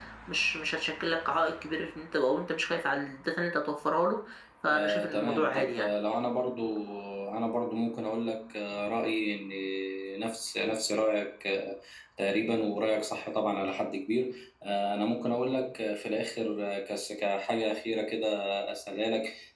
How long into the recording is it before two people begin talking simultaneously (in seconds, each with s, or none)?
4.7 s